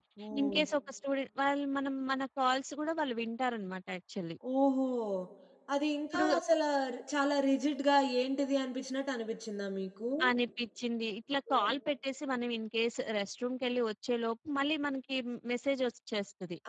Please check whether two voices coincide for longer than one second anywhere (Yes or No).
No